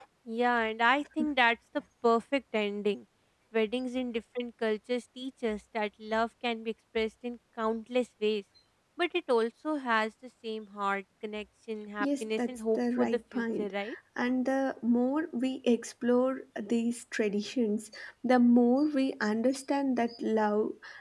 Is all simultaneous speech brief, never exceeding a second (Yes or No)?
No